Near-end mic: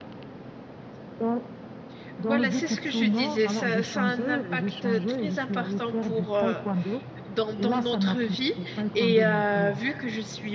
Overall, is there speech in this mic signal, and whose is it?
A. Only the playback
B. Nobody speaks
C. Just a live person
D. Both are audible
D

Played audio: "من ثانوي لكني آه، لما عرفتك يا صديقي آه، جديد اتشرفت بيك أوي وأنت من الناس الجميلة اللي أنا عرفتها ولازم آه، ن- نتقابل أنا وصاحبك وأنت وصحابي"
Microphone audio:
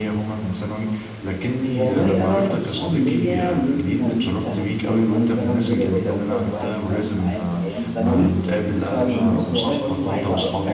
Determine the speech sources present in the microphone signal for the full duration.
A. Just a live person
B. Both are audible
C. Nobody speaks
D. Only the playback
B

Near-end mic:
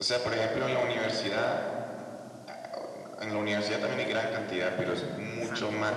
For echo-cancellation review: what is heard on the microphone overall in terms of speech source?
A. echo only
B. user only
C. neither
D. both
D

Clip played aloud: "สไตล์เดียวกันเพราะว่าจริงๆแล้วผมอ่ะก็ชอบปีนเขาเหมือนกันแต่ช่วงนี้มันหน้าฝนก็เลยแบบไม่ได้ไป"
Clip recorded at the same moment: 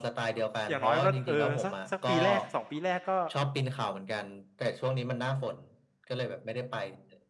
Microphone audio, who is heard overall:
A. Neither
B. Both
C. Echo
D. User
B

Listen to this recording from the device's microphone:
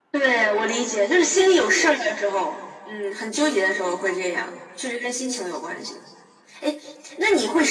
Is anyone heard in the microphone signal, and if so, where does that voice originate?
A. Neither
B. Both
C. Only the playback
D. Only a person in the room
C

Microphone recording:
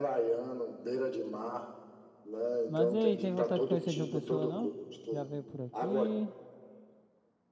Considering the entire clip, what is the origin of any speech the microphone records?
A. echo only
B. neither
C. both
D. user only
C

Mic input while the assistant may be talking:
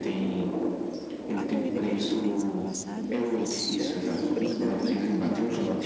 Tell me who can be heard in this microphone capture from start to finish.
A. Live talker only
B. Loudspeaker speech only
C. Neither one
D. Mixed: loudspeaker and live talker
D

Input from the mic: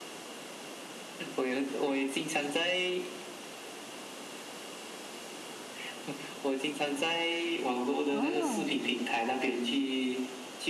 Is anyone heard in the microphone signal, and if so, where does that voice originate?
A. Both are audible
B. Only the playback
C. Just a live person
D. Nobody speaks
A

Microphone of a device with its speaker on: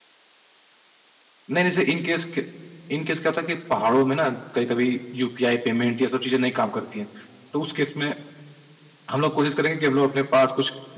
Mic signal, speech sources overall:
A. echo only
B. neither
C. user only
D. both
C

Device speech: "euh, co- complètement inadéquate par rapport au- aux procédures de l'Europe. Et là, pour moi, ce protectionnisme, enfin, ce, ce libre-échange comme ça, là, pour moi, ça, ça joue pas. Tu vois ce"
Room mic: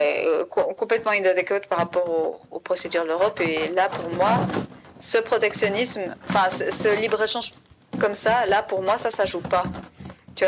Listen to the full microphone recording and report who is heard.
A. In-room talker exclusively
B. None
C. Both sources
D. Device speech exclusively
D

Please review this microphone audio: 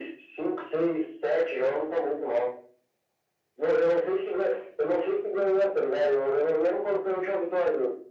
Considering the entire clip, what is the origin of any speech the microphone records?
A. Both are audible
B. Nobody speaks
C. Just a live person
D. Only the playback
D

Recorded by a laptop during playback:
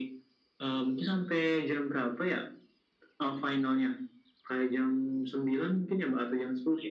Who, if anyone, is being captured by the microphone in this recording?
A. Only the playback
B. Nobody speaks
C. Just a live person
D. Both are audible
A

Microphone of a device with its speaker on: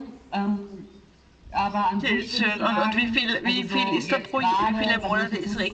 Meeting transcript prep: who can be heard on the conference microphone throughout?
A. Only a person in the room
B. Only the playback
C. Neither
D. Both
D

